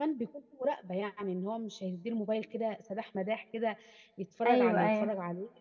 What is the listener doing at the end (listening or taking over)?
listening